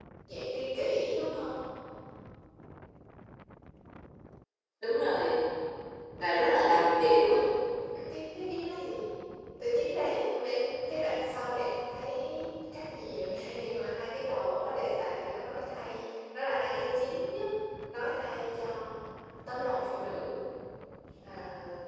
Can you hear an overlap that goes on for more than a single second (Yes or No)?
No